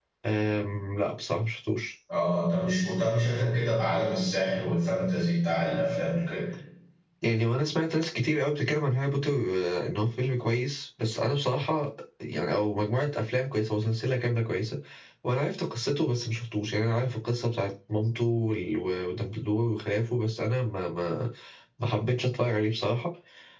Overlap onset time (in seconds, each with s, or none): none